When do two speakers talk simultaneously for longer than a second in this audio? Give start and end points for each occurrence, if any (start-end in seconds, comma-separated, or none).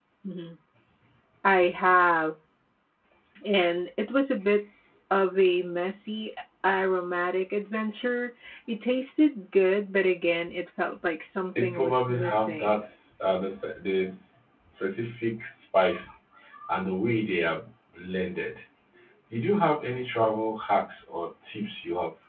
11.6-12.8